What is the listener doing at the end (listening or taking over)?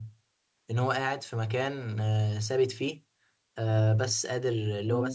listening